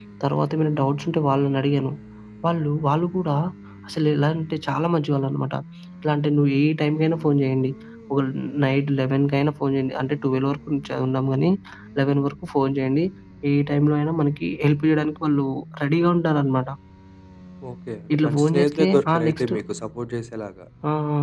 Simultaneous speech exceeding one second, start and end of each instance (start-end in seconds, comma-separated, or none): 18.1-19.5